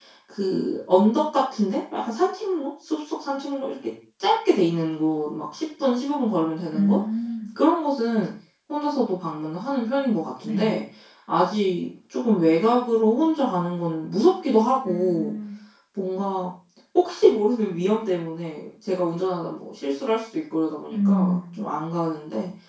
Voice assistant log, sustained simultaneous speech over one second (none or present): none